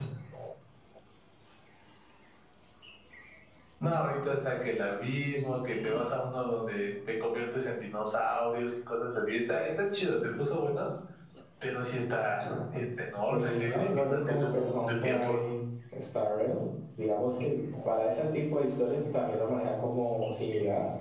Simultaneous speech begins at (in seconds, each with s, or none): 13.3 s